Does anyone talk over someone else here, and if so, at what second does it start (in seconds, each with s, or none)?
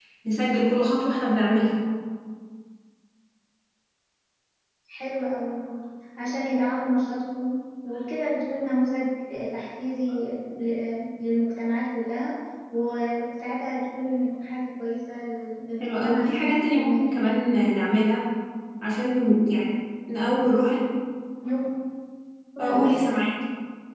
15.8 s